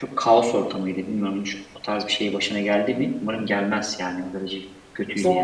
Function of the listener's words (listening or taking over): taking over